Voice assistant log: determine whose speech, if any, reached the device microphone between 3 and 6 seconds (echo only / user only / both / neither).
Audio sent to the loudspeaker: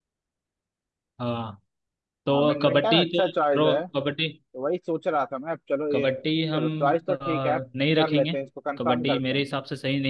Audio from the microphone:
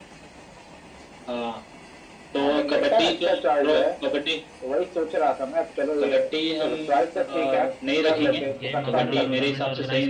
echo only